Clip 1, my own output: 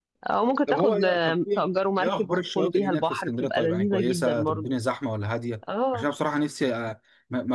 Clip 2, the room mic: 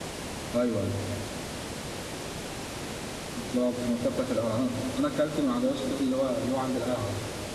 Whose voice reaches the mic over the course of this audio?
user only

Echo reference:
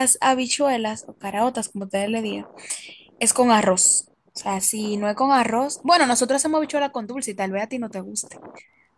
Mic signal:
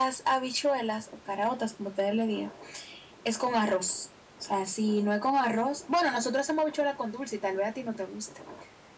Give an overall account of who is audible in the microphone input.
echo only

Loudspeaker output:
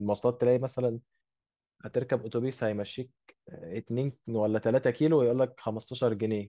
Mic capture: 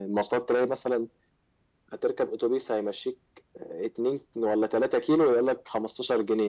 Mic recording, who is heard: echo only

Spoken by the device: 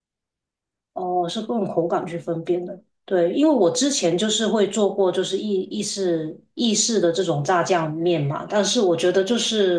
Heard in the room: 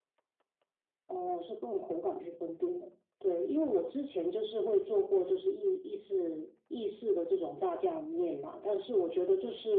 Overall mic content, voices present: echo only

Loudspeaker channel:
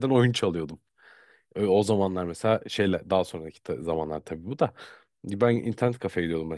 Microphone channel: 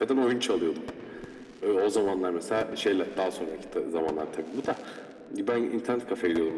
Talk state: echo only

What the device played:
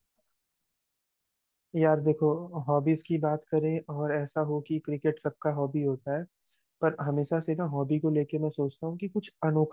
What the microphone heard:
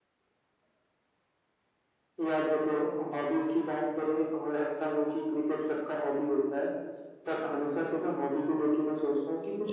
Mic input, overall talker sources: echo only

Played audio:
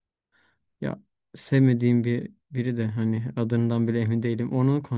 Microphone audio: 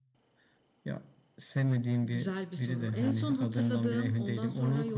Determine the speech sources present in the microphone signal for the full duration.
both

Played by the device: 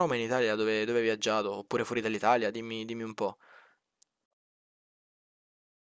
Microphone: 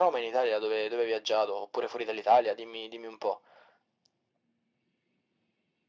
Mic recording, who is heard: echo only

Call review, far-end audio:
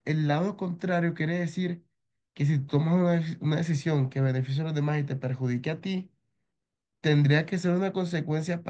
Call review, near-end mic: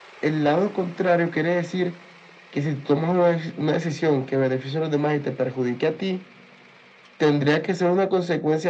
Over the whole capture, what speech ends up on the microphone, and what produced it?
echo only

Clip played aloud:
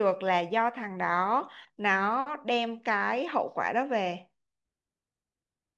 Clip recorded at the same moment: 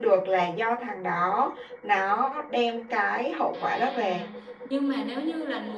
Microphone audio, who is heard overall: both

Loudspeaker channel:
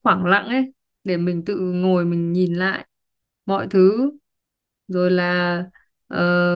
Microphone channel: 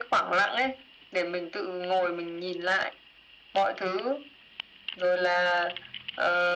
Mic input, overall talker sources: echo only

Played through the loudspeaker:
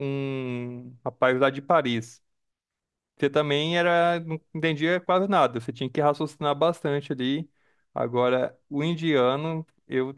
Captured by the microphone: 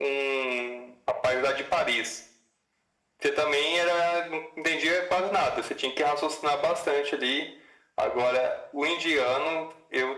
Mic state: echo only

